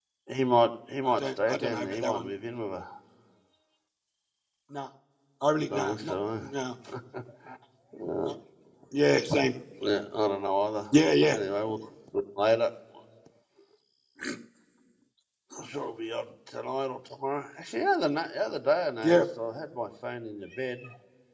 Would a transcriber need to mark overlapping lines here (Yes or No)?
Yes